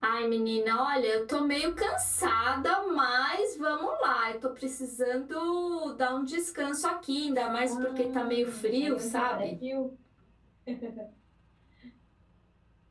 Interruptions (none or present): present